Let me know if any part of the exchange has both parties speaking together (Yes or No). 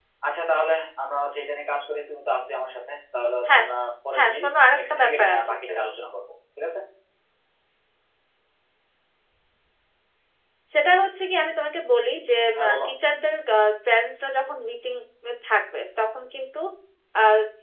Yes